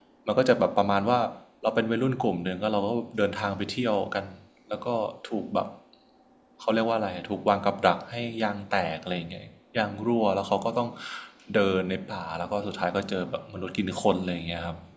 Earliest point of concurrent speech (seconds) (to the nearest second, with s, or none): none